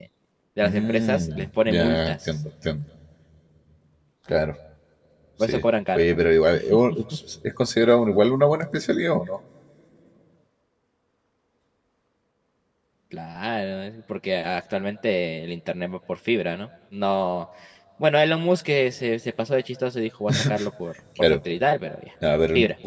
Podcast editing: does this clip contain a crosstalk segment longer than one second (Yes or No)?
Yes